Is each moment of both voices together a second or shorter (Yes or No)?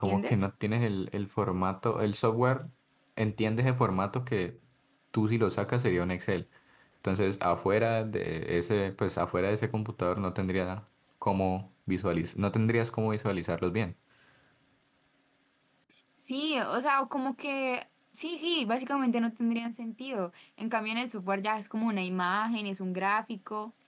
Yes